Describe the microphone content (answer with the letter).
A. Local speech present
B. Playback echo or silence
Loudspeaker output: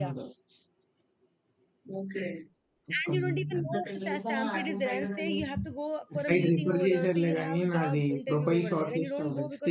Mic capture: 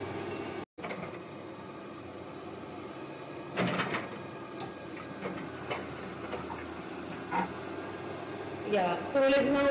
A